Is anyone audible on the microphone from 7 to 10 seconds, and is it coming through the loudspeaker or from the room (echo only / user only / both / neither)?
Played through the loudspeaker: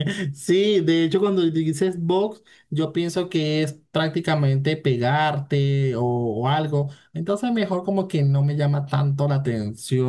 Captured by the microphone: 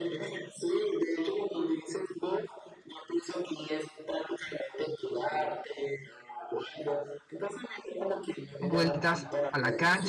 both